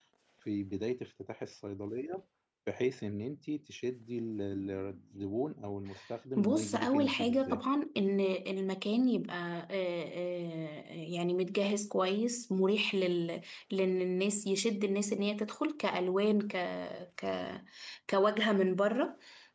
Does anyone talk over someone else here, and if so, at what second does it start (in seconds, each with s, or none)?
6.4 s